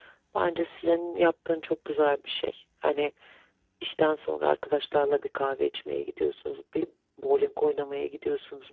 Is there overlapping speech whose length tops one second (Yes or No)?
No